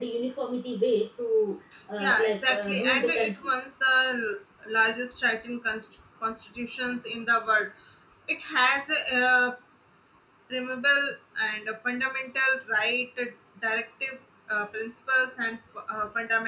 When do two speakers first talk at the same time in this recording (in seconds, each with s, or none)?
2.0 s